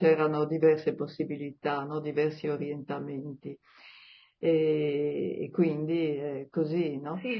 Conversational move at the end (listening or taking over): taking over